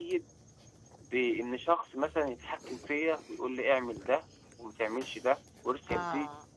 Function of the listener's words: taking over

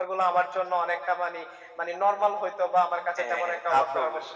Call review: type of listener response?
taking over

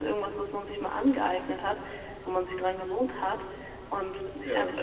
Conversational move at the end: listening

